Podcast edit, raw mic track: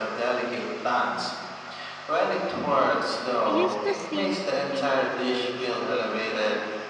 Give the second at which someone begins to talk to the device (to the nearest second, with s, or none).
3 s